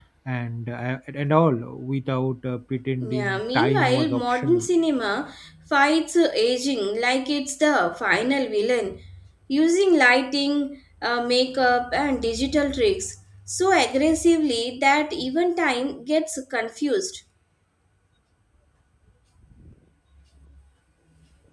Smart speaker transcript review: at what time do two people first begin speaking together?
3.0 s

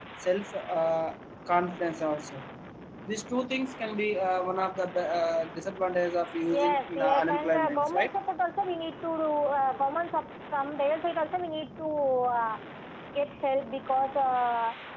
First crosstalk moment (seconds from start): 6.5 s

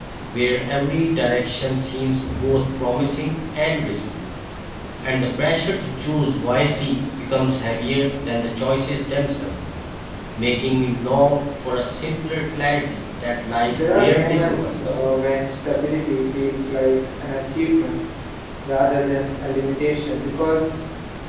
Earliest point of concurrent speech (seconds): 13.7 s

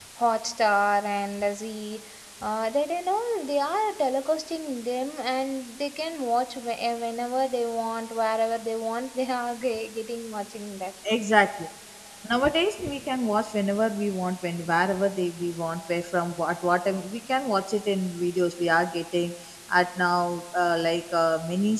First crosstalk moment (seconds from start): none

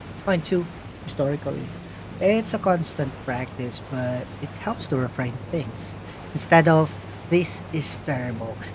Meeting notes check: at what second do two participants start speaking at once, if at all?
none

